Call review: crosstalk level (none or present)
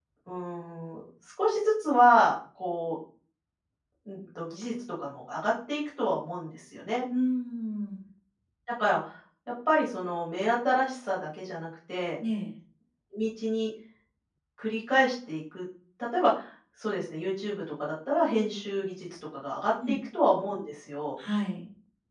none